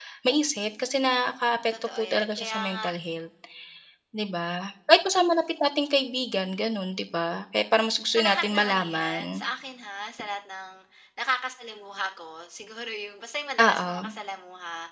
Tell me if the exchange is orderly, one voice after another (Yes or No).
No